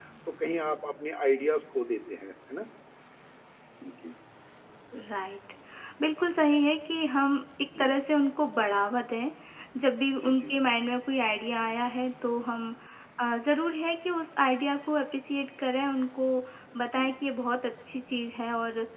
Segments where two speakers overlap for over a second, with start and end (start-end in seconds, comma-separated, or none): none